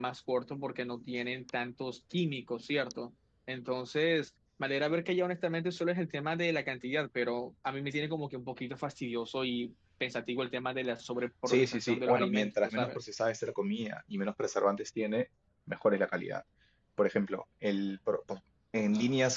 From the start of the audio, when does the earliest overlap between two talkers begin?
11.5 s

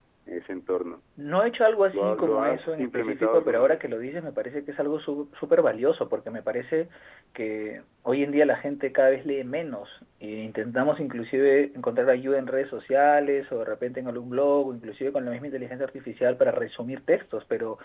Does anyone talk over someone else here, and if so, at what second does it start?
1.9 s

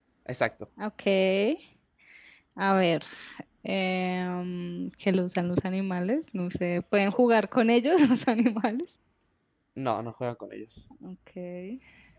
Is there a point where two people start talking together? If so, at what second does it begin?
none

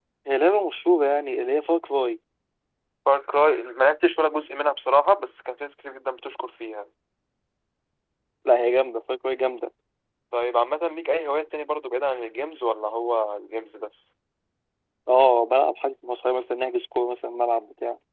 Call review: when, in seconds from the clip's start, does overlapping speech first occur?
none

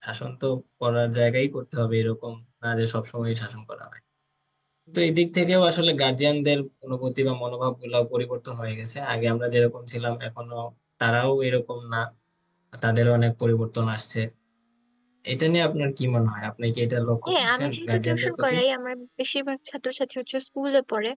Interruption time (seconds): 17.3 s

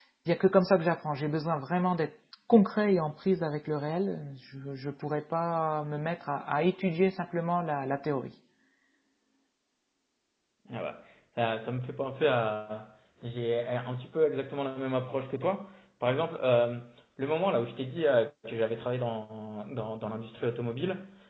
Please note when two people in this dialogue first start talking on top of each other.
none

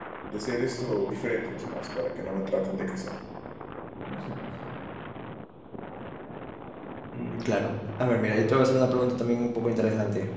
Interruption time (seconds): none

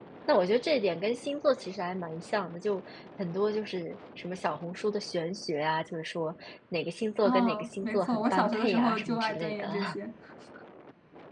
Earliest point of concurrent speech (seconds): 7.2 s

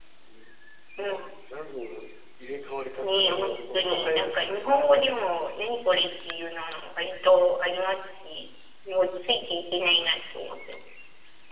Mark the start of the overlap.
3.0 s

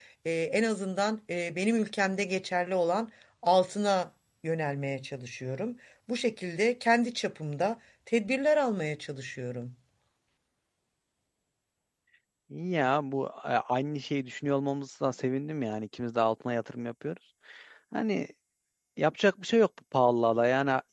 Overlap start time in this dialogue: none

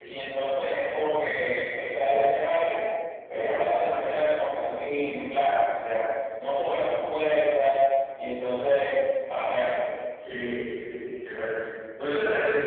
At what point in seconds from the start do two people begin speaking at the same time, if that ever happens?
none

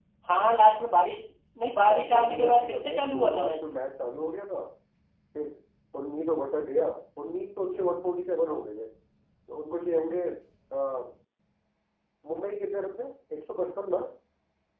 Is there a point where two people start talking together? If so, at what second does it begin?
1.8 s

